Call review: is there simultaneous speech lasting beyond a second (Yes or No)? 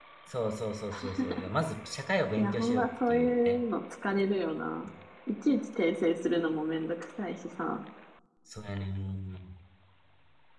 Yes